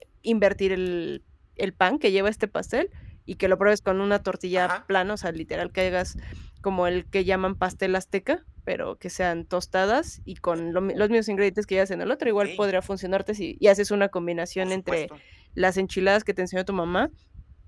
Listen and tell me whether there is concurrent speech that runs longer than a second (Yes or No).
No